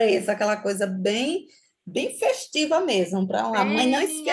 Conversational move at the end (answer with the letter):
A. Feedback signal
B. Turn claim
B